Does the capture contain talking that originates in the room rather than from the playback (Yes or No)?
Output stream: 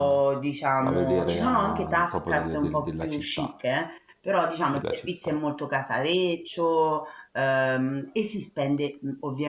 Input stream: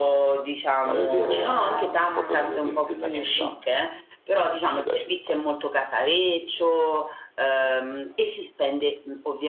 Yes